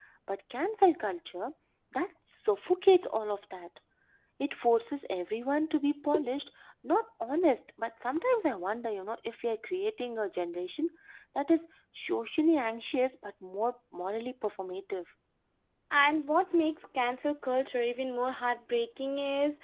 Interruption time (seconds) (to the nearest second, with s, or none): none